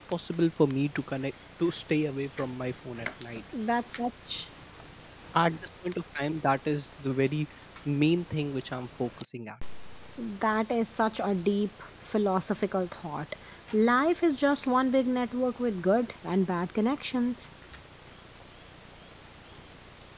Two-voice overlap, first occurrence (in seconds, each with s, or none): none